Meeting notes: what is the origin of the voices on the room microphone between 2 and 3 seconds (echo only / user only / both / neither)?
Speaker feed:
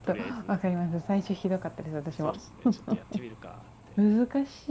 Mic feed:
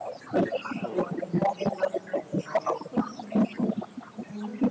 echo only